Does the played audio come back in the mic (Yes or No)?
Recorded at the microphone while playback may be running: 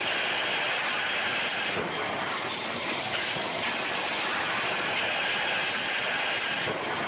No